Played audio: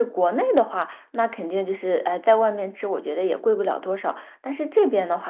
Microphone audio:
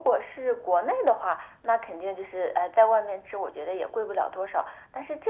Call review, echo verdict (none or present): present